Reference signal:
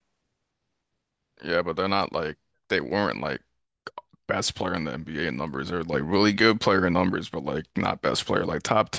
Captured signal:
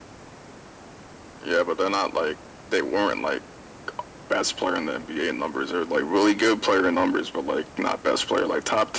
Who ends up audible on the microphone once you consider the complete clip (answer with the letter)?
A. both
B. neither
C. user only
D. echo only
D